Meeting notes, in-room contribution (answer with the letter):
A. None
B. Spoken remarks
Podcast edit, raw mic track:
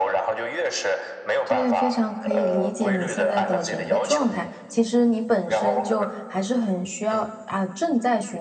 B